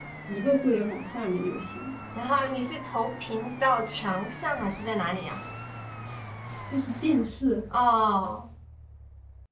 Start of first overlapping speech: none

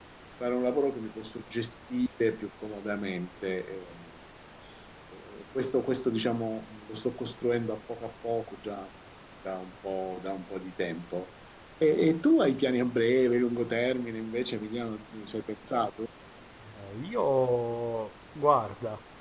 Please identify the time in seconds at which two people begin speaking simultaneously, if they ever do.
none

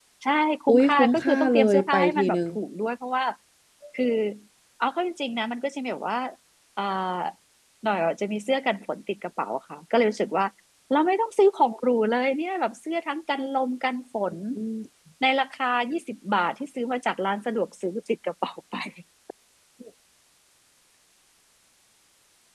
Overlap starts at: 0.7 s

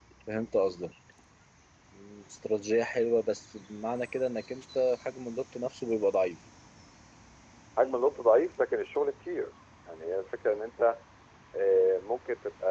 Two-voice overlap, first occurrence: none

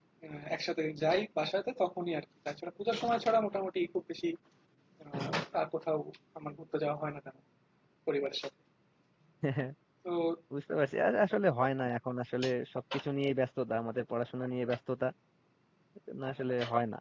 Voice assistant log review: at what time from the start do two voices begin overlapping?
none

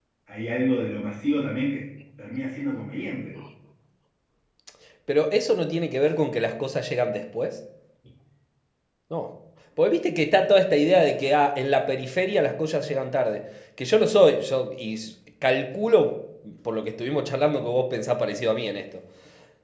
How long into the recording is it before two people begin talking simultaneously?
none

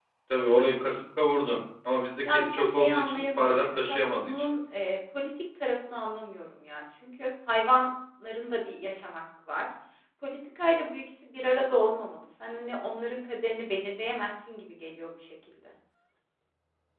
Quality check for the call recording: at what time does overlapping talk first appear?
2.2 s

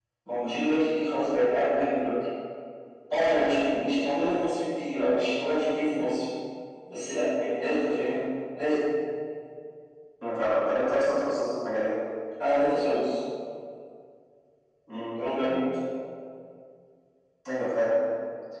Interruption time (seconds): none

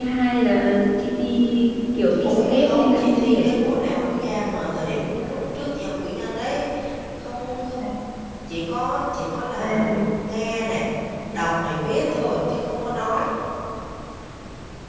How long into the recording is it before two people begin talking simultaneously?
2.2 s

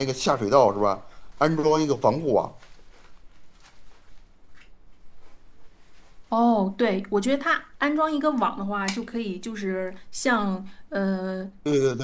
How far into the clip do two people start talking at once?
none

